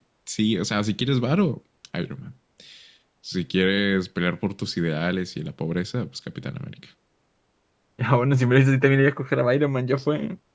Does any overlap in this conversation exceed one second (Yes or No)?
No